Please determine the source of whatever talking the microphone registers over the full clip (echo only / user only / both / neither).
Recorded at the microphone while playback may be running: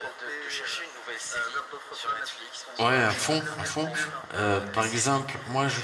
both